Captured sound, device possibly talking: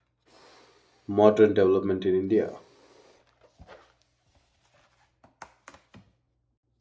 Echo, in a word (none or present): none